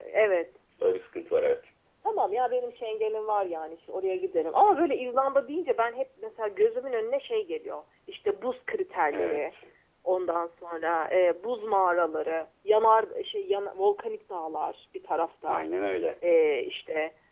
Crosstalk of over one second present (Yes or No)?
No